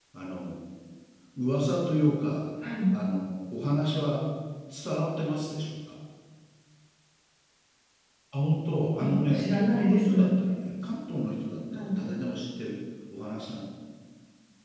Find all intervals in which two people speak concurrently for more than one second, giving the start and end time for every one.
9.0-10.4

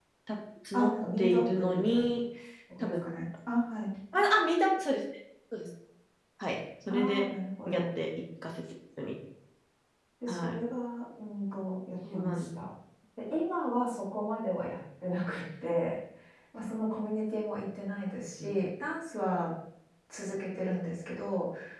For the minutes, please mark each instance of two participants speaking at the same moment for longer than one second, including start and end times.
0.7-2.1

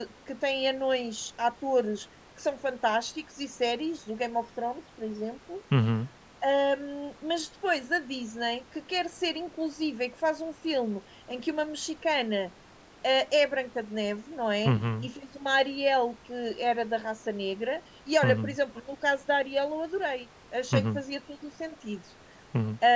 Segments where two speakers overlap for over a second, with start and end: none

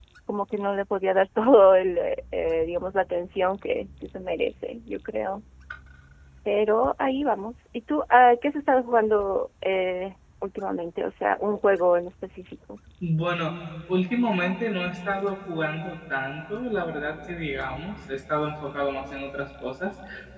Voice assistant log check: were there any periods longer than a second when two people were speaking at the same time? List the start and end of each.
none

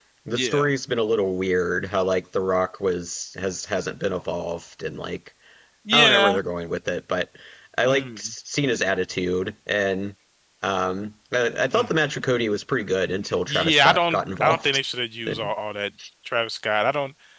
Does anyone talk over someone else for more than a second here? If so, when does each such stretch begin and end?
13.5-14.8

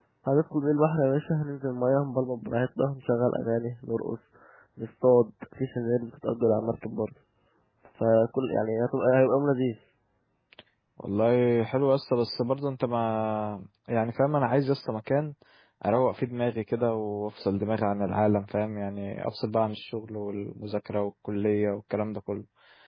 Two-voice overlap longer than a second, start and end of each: none

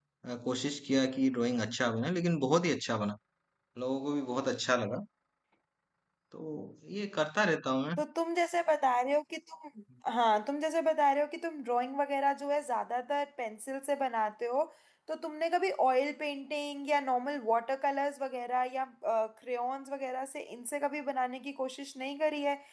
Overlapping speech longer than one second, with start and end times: none

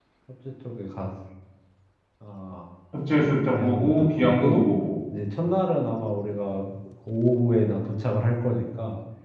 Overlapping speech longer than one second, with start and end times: 3.1-4.7

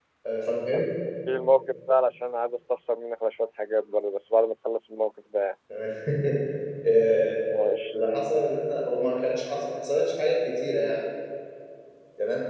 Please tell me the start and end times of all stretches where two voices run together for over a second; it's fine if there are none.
none

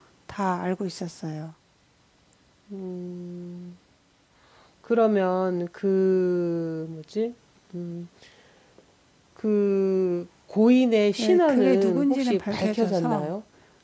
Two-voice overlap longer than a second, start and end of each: 11.2-13.3

